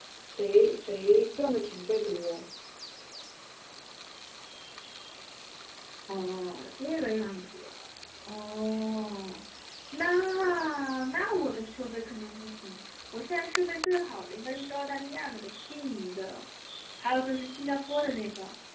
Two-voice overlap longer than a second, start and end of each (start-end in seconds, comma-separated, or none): none